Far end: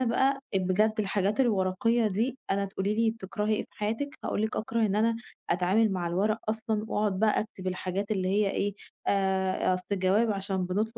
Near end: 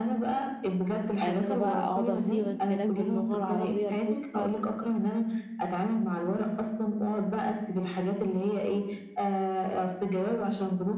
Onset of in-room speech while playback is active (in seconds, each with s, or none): 1.2 s